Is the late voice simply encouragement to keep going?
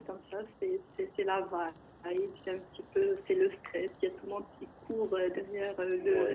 No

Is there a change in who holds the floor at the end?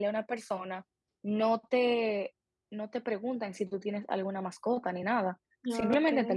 No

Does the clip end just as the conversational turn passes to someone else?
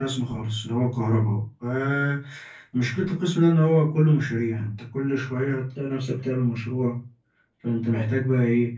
No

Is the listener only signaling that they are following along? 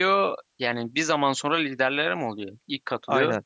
No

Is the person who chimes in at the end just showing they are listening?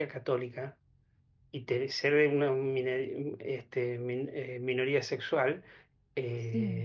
Yes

